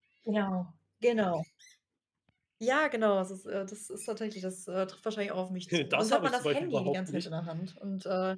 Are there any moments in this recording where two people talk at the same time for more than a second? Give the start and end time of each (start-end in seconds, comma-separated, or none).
5.7-7.3